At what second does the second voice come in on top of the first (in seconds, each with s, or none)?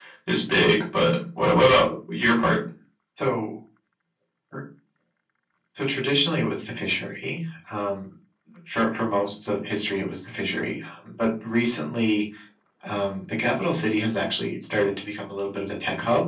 none